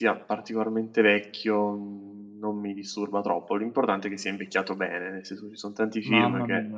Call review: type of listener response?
taking over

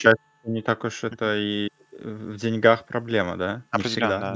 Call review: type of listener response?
taking over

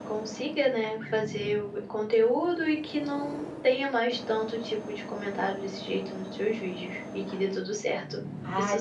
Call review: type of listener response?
taking over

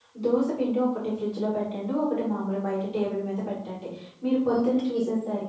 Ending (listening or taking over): listening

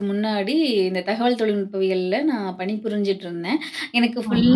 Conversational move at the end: listening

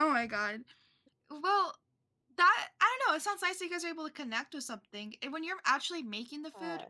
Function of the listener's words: listening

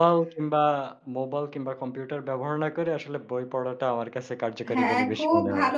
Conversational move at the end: taking over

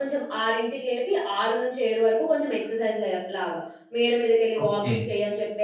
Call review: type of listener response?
listening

